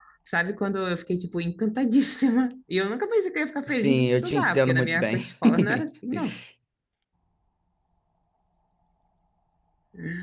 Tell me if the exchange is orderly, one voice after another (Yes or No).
No